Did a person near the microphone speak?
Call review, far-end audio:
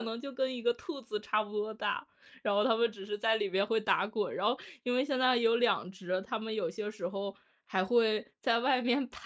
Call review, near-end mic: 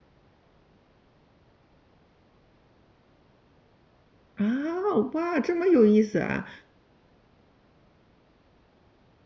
Yes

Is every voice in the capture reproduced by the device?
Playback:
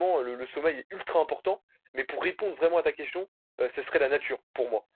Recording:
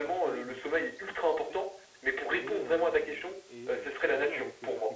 No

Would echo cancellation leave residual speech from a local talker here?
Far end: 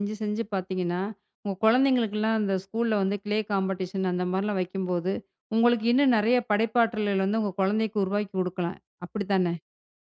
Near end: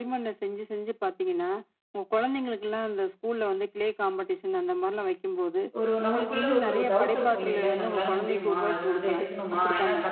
Yes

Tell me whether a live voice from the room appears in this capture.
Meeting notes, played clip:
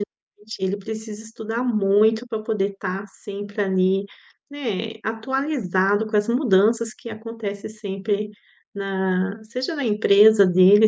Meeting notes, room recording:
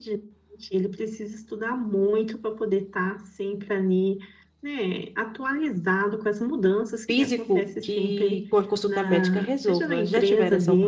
Yes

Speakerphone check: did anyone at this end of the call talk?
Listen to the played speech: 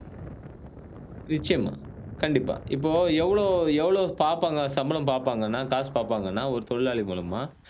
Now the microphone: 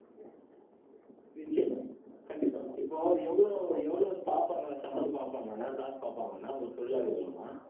No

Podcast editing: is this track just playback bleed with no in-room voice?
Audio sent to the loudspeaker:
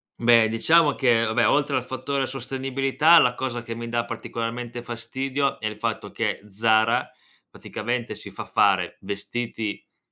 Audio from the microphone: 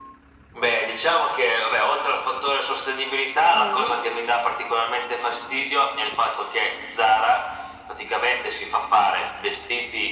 No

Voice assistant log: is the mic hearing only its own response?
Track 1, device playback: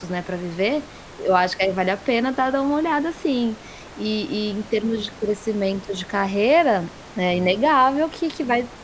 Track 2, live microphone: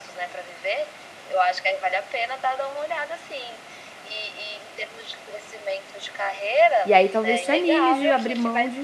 No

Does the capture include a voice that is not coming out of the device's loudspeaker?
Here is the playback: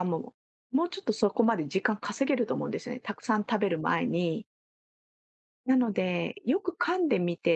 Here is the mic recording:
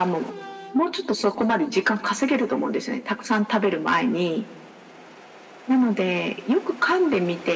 No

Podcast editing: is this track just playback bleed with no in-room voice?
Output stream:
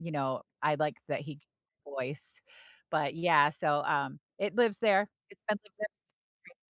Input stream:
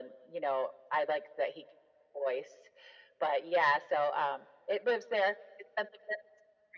Yes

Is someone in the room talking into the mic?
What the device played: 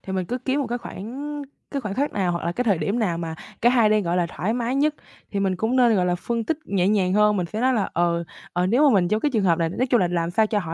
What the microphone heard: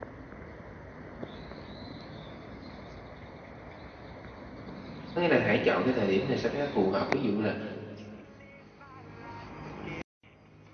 Yes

